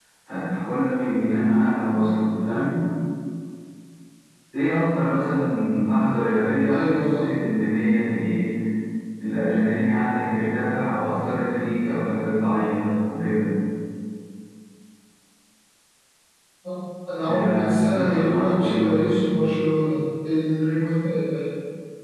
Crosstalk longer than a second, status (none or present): present